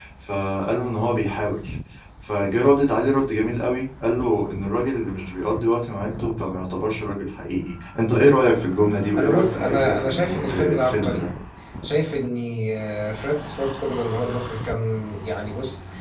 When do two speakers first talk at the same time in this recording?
9.1 s

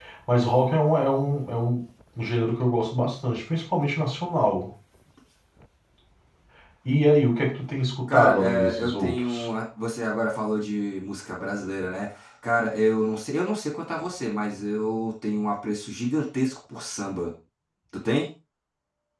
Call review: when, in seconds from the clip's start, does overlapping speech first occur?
8.1 s

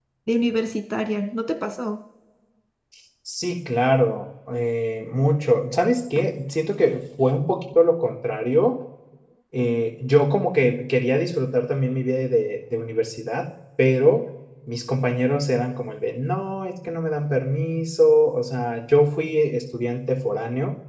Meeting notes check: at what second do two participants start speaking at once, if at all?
none

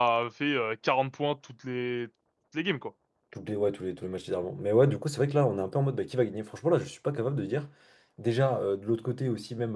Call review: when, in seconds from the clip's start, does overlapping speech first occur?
none

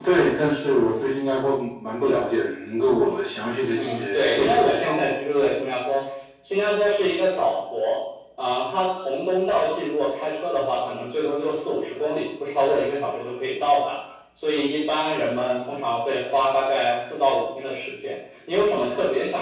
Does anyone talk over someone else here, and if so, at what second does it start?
3.7 s

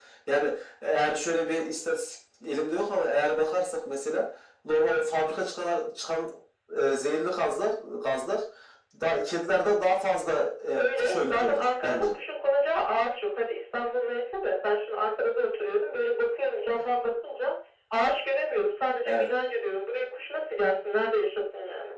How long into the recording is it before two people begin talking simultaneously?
10.8 s

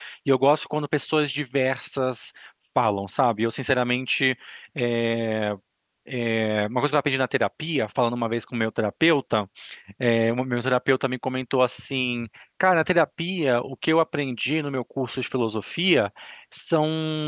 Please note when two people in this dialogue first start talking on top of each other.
none

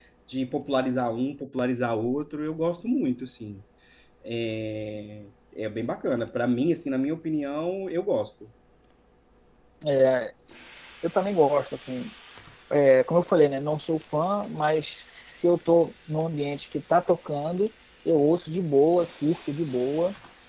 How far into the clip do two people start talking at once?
none

